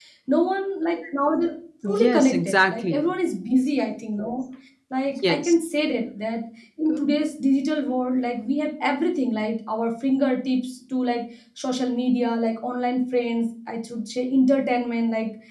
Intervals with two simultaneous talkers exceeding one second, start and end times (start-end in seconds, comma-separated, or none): 1.9-3.1